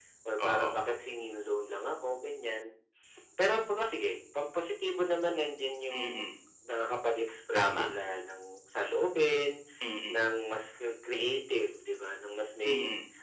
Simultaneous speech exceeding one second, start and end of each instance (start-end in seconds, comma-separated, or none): none